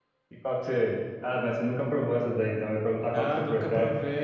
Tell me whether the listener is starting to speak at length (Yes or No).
Yes